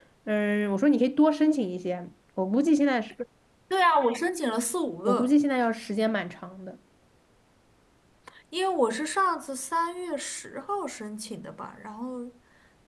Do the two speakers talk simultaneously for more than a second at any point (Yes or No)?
No